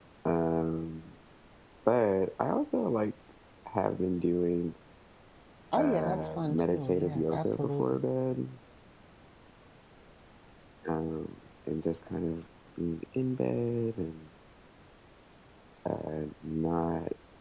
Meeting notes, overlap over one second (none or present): present